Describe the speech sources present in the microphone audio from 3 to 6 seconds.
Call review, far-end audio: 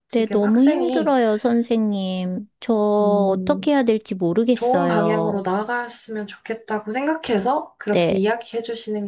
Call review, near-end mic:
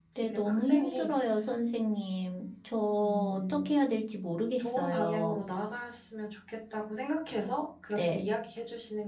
echo only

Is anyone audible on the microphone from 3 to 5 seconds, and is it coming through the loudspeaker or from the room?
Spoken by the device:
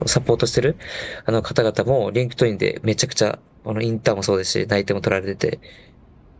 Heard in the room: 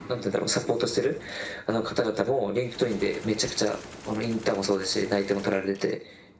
echo only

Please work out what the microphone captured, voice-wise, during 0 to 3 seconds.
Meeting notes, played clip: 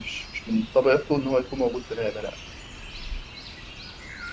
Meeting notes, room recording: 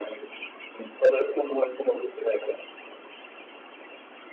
echo only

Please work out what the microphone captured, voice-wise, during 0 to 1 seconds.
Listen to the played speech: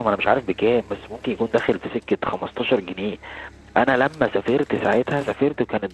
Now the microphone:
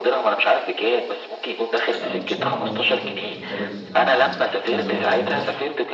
echo only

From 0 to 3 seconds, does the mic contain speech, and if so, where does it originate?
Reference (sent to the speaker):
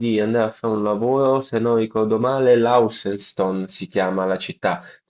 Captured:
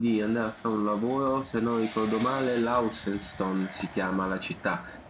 echo only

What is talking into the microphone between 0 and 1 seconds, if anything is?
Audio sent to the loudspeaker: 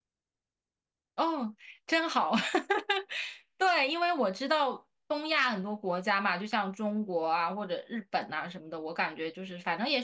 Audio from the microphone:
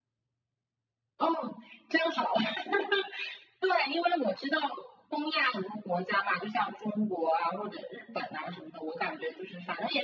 neither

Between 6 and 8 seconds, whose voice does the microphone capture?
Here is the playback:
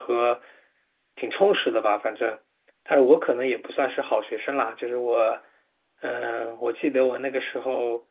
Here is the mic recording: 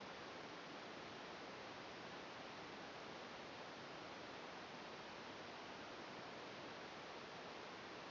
neither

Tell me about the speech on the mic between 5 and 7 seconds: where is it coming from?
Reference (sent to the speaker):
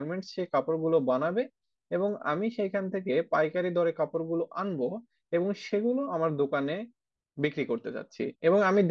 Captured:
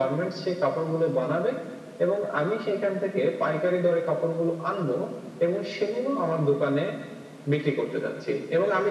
echo only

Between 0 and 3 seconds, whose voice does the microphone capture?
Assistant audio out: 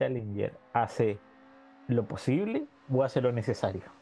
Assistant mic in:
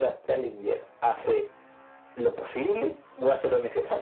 echo only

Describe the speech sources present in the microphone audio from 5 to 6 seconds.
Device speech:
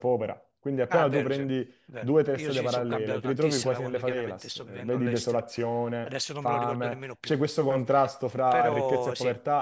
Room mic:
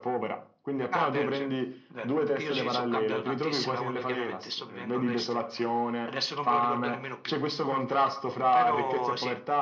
echo only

